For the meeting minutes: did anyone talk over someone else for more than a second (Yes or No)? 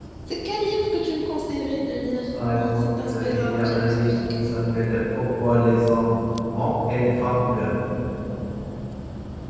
Yes